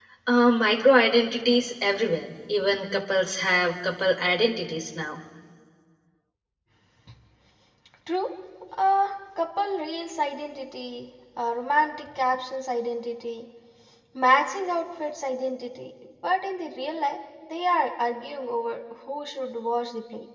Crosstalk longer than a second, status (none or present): none